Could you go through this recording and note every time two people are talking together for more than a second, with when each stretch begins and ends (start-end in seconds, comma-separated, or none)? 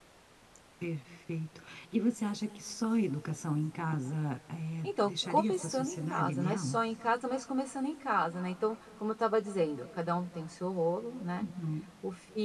4.8-6.8